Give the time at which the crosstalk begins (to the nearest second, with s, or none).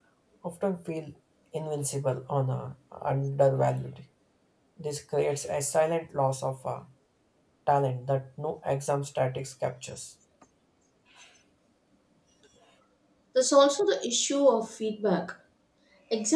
none